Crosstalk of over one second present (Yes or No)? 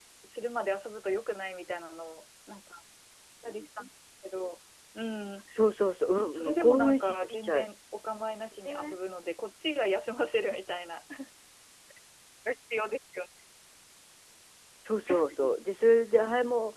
Yes